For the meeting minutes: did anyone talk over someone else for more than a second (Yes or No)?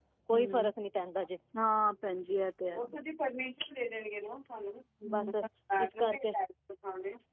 No